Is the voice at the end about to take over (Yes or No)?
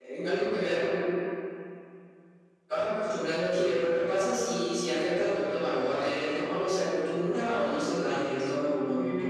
Yes